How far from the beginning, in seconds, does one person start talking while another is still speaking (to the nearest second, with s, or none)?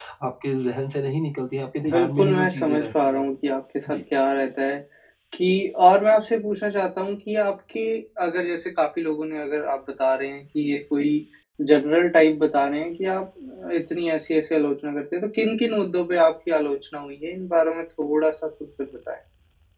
2 s